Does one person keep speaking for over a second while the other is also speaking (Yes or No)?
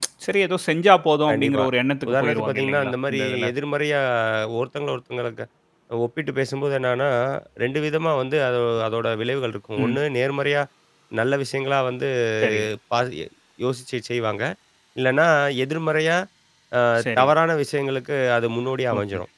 Yes